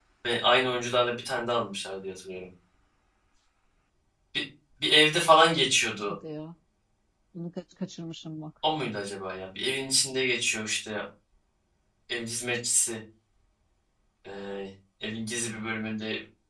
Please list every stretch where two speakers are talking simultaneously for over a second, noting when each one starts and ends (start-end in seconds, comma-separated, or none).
none